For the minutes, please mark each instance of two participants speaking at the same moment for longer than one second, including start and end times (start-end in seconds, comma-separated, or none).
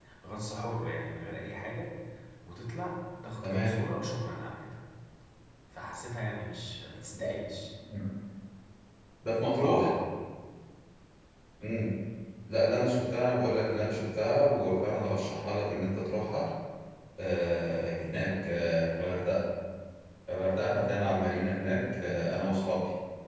none